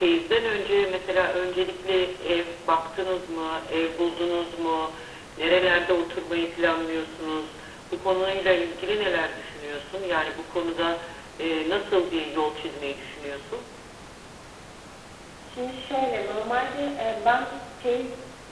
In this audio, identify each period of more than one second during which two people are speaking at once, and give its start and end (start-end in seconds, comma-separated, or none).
none